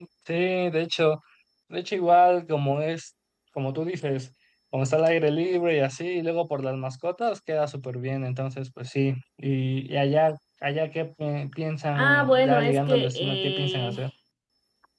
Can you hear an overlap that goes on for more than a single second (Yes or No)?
Yes